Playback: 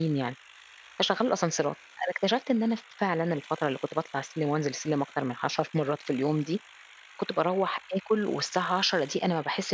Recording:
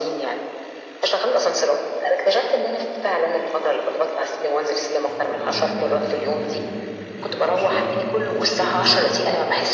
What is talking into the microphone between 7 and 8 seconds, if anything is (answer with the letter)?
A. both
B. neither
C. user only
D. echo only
A